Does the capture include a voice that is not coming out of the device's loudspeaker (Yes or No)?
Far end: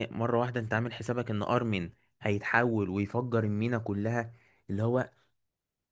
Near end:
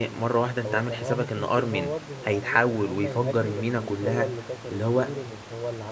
Yes